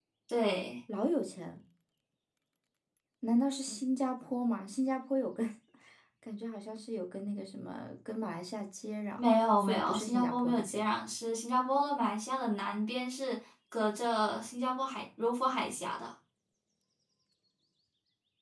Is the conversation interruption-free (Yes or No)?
No